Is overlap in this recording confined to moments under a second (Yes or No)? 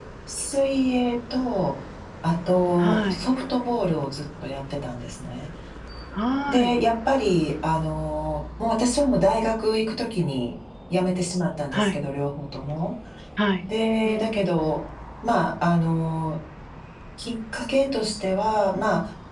Yes